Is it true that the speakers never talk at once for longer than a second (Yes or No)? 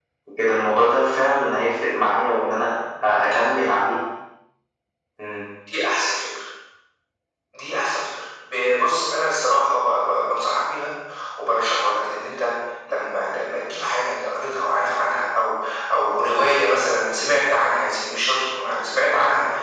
Yes